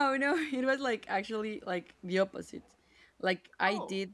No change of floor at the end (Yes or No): Yes